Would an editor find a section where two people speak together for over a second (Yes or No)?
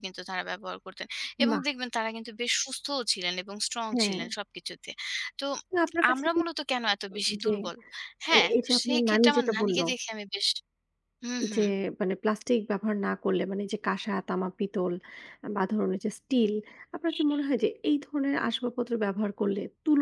Yes